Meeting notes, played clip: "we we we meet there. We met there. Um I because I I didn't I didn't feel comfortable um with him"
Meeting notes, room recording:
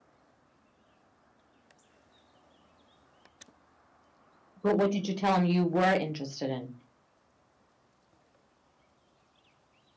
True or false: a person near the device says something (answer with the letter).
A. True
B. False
A